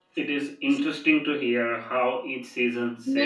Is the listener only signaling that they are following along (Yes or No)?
No